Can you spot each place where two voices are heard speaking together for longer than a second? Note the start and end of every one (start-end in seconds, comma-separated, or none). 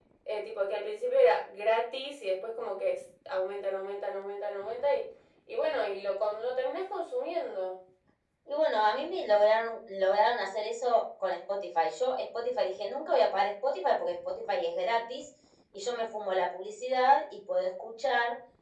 none